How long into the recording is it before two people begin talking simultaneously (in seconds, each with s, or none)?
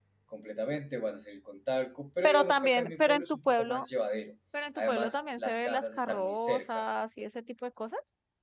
2.2 s